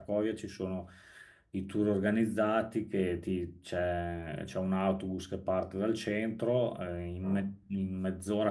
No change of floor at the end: Yes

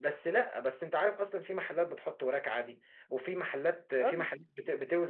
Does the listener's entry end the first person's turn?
No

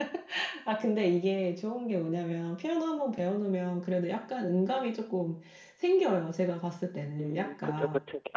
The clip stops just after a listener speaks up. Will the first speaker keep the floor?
No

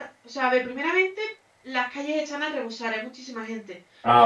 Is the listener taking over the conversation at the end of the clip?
No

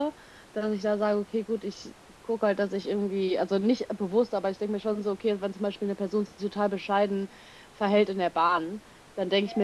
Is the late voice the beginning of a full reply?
No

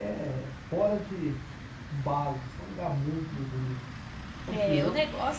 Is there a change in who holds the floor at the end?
Yes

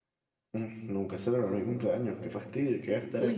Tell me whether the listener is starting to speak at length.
Yes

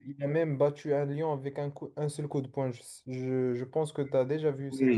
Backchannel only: No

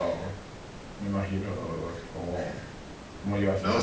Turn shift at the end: Yes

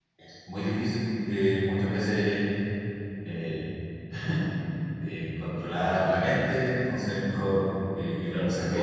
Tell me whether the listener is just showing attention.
No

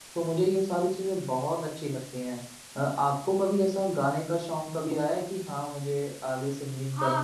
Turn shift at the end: Yes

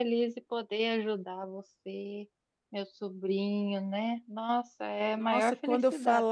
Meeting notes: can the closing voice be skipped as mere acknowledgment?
No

